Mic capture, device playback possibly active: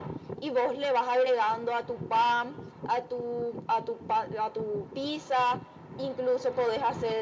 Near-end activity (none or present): none